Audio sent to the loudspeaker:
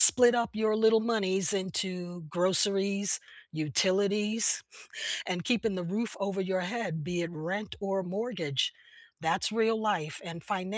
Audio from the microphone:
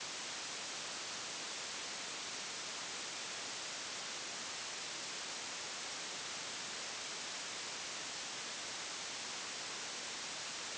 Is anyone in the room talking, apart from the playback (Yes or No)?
No